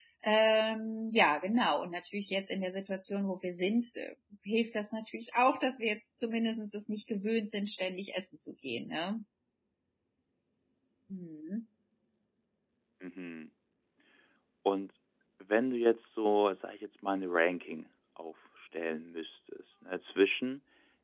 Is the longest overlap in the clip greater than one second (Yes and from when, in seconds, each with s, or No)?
No